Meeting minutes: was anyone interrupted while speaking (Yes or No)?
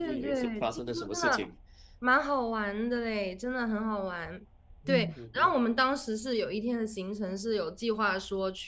Yes